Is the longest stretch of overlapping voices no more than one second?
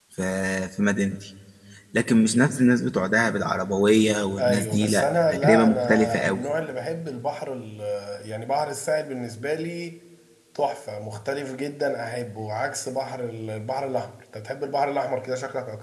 No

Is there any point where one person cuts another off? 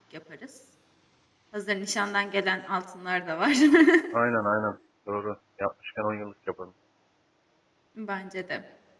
No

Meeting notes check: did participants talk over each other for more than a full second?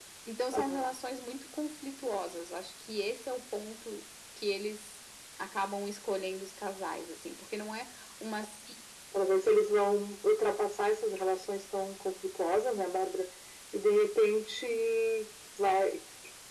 No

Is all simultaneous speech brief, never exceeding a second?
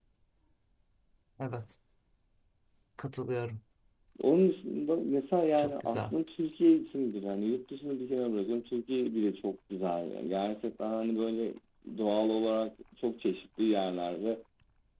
Yes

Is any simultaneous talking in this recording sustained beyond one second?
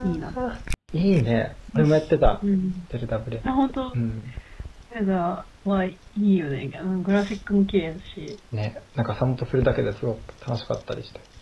No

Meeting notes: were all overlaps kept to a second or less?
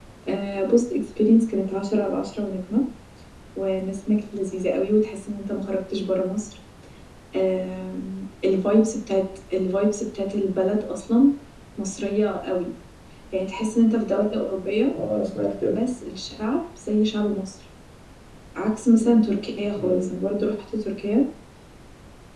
Yes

